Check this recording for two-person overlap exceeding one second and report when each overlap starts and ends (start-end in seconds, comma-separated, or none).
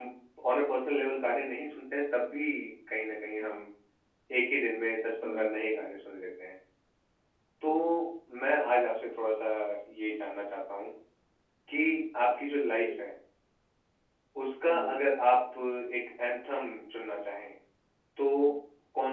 none